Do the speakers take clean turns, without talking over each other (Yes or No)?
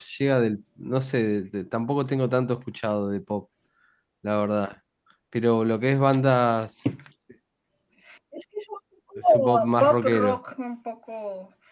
No